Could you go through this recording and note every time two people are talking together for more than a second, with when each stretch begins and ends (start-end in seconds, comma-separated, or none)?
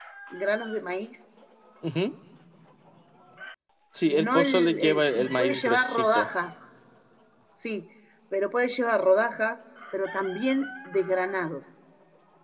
4.0-6.3